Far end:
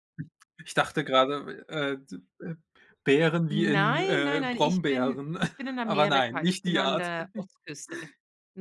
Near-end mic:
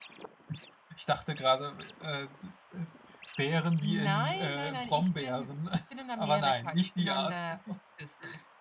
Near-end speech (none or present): none